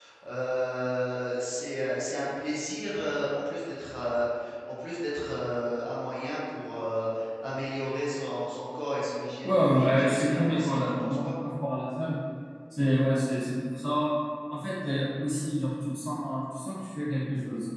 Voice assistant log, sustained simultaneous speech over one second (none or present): present